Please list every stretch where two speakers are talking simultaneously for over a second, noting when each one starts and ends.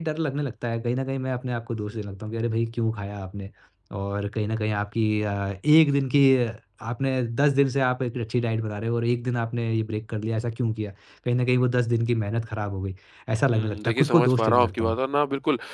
13.5-15.0

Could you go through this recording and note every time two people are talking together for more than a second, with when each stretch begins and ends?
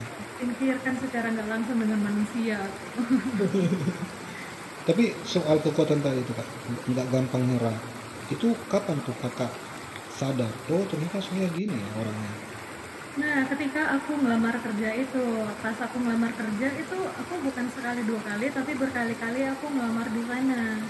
none

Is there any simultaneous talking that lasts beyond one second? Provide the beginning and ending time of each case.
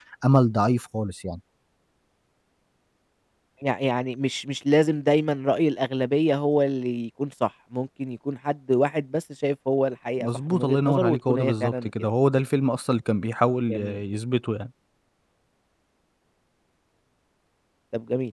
10.2-11.9

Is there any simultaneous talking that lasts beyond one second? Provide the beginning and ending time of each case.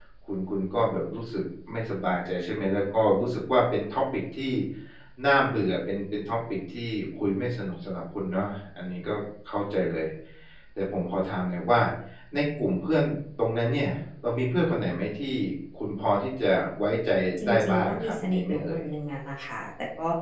17.5-18.8

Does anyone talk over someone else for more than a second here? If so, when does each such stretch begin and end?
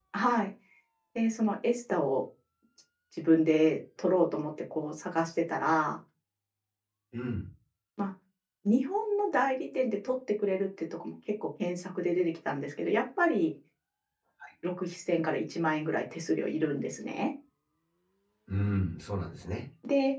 none

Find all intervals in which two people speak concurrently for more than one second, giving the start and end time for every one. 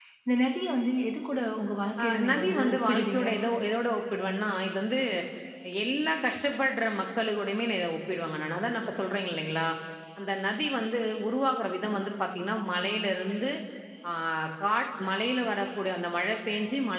2.0-3.3

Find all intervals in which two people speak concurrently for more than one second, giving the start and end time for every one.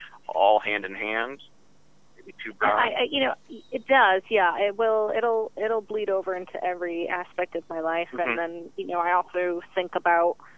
none

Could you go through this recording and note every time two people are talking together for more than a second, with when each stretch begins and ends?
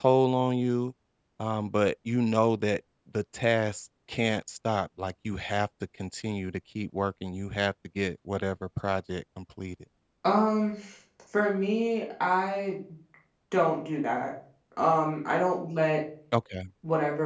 none

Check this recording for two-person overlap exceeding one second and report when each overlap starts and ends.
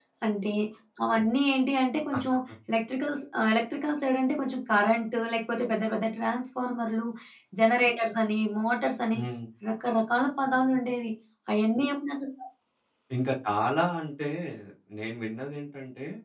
none

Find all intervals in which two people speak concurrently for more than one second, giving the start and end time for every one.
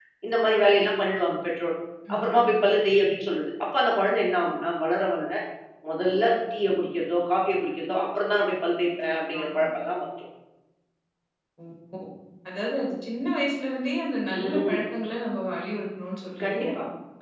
none

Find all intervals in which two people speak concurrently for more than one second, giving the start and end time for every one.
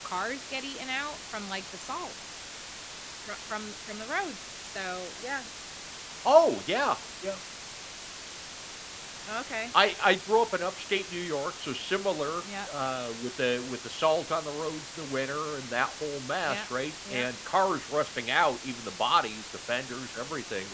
none

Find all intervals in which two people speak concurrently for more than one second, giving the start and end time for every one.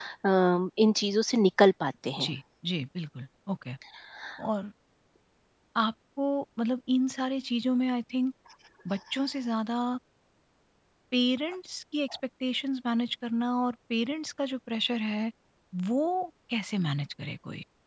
none

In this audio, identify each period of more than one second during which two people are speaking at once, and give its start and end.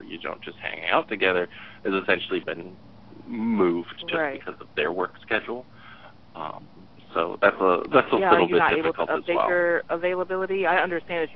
8.1-9.6

